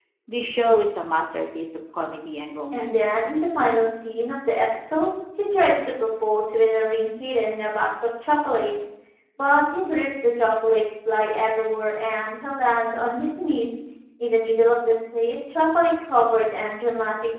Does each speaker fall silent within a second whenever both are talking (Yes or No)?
Yes